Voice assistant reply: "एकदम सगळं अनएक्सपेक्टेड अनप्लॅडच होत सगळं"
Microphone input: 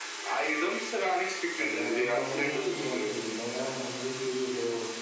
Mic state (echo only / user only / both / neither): both